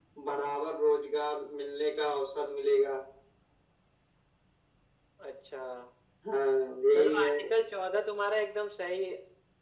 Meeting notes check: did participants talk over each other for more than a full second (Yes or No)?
No